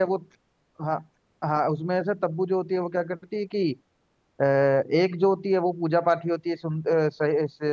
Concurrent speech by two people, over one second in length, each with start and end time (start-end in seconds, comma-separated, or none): none